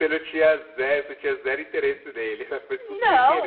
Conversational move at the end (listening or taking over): taking over